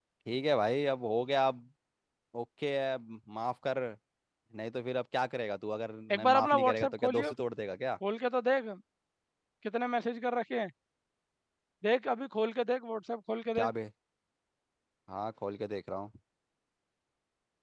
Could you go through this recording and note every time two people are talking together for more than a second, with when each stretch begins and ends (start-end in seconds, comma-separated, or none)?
6.1-7.3